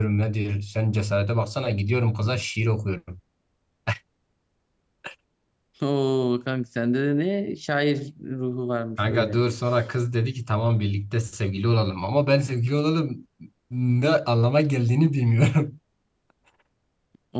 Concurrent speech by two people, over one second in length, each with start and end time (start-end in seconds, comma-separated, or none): none